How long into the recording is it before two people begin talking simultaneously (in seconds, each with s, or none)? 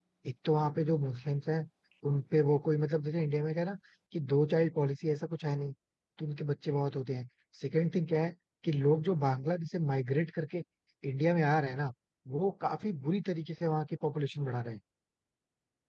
none